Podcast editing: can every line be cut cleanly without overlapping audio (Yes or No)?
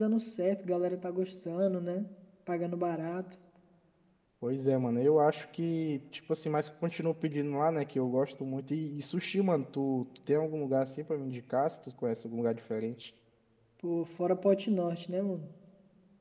Yes